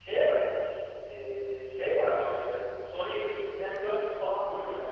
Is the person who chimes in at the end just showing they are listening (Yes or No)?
No